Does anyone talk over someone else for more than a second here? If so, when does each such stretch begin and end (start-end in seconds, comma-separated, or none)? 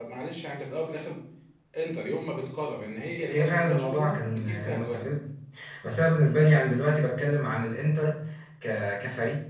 3.3-5.1